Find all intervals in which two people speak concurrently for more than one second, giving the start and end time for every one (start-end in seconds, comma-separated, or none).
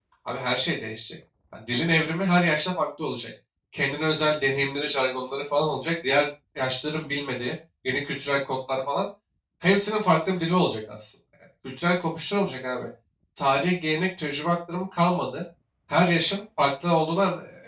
none